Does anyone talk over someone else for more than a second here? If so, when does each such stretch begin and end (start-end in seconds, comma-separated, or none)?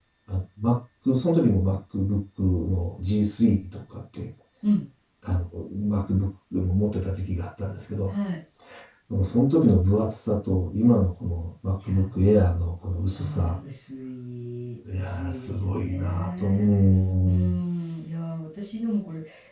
15.0-16.7